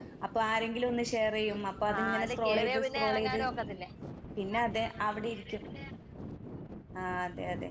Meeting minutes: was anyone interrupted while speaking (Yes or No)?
Yes